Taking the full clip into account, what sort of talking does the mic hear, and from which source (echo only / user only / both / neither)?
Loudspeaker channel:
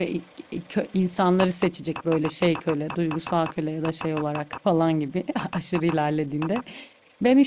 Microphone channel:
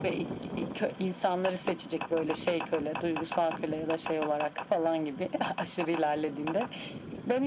echo only